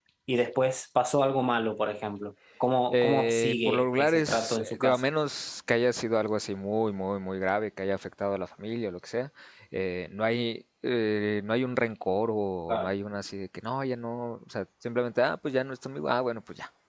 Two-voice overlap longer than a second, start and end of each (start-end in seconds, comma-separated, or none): 2.9-5.0